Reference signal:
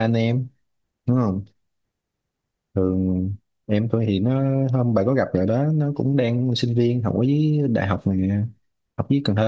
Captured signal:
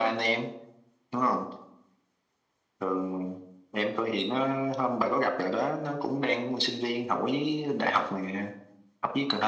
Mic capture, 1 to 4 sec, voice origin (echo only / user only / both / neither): echo only